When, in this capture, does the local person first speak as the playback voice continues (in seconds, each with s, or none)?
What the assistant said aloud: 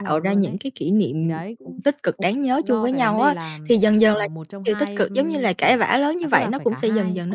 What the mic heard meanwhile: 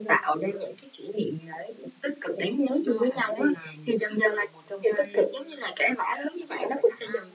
none